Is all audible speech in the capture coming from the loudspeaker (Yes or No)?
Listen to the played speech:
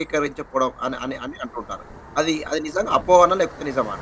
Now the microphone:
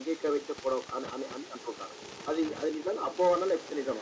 Yes